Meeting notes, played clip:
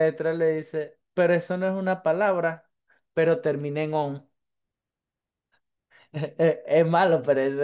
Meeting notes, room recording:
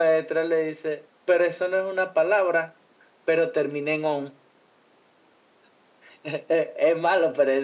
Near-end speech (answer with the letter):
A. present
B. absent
B